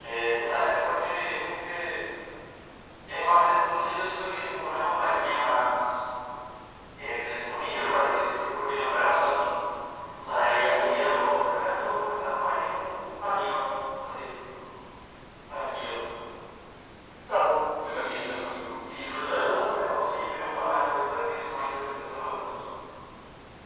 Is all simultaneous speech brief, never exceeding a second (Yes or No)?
No